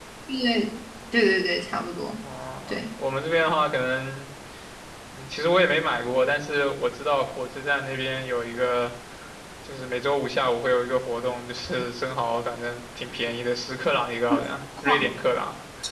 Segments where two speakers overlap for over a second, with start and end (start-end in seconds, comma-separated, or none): none